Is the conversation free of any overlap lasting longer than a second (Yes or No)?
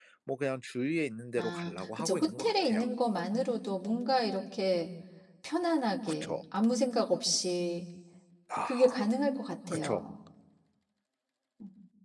No